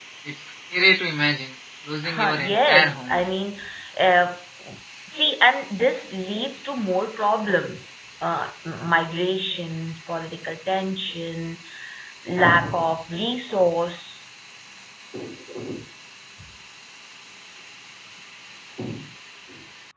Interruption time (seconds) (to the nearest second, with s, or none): 2 s